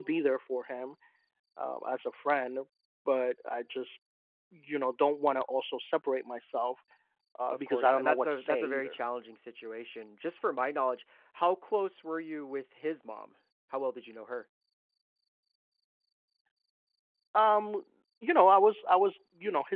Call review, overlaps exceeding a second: present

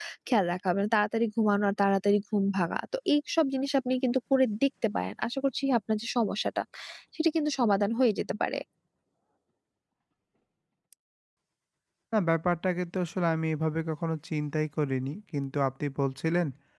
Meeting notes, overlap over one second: none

